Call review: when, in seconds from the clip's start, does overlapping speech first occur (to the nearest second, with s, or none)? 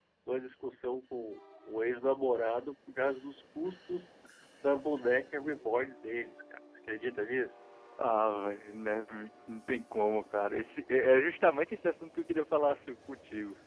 none